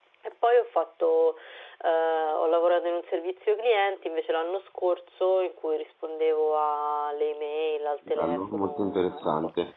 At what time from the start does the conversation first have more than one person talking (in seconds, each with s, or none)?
8.2 s